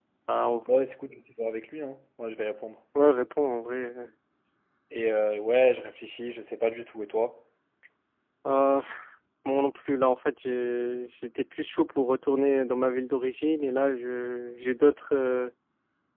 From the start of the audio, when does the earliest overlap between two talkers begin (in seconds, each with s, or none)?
none